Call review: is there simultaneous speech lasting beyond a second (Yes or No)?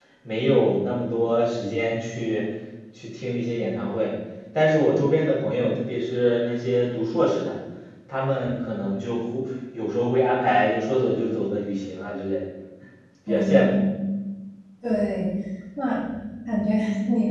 No